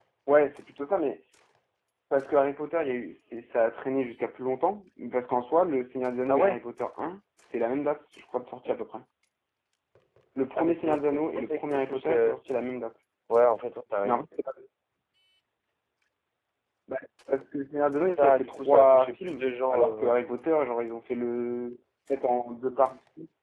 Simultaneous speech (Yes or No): Yes